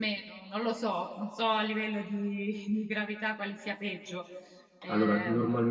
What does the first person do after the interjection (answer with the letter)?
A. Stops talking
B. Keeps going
A